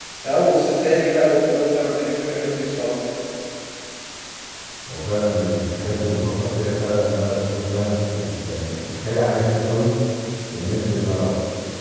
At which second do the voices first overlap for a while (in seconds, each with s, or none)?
none